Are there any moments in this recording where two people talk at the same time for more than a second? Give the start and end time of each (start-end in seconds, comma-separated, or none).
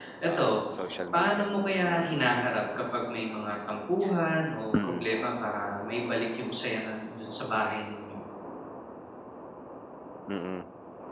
none